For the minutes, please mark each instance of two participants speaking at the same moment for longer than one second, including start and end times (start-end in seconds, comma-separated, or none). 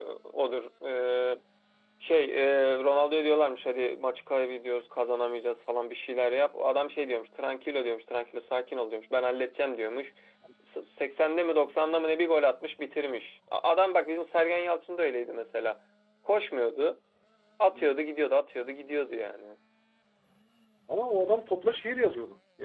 none